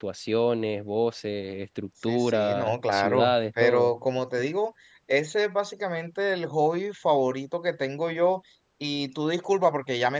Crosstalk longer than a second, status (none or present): present